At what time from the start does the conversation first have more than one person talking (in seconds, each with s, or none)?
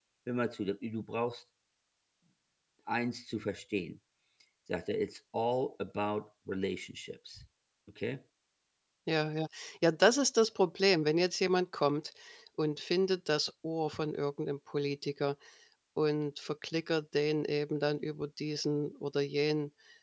none